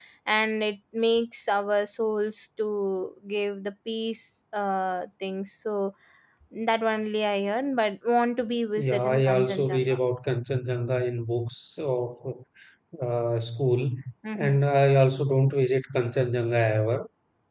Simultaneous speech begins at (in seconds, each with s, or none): 8.8 s